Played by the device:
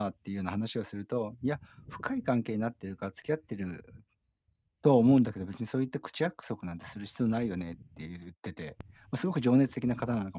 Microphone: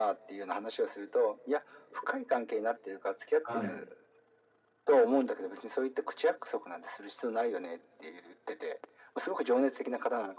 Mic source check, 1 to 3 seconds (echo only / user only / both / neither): echo only